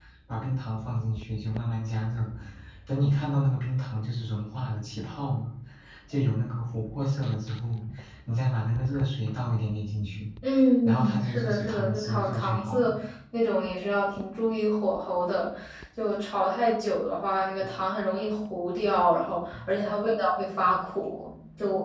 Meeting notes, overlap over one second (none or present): present